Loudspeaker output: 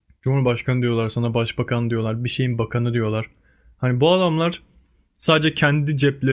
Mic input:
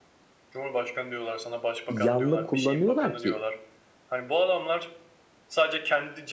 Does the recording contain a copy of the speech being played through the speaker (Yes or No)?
Yes